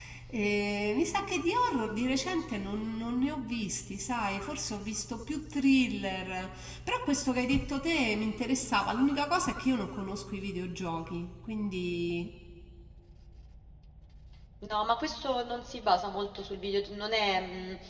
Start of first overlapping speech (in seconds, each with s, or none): none